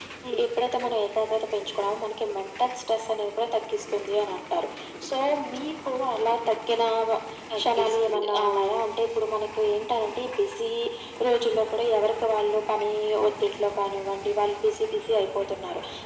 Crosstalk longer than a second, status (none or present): present